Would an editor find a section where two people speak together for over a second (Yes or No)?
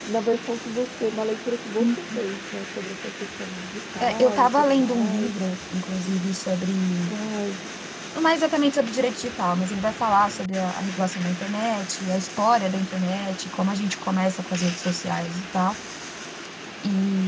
Yes